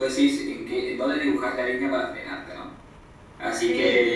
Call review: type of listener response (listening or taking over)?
listening